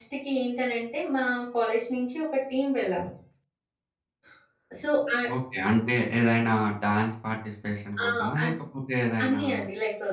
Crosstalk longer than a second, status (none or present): none